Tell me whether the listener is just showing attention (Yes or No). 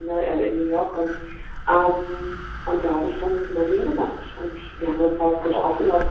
Yes